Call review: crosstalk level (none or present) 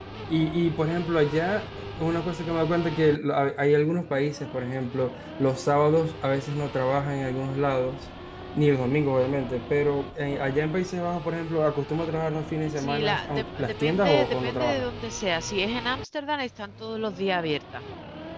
present